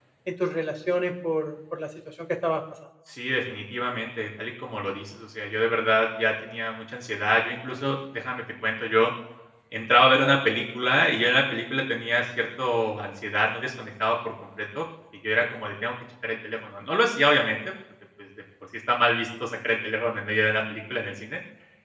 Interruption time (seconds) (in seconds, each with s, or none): none